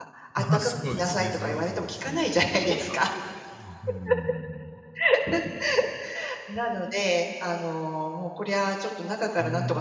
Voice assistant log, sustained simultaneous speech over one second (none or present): present